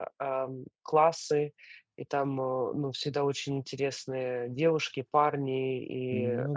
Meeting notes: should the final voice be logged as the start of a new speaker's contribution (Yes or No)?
No